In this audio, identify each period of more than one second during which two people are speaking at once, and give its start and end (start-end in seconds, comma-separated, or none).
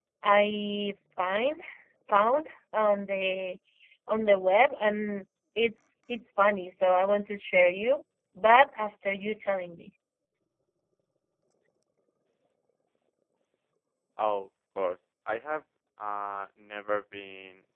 none